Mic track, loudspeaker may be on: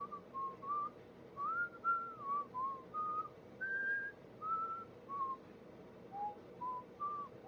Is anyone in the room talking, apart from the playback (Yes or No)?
No